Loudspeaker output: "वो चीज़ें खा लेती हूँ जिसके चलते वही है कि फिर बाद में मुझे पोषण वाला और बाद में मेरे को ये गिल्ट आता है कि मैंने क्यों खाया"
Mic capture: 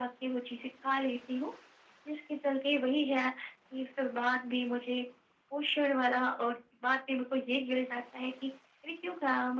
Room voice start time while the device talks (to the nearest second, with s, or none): none